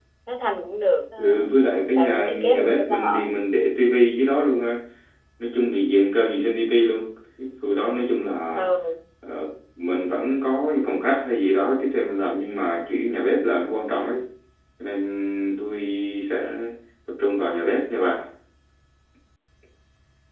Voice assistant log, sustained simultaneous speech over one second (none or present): present